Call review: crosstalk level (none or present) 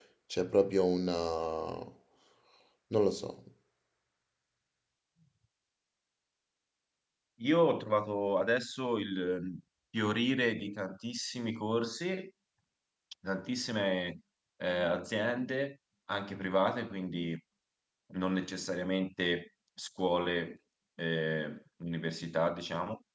none